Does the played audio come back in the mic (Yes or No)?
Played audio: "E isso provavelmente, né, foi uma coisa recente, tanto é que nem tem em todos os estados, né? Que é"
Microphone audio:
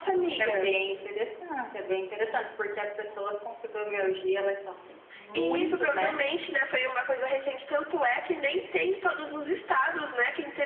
Yes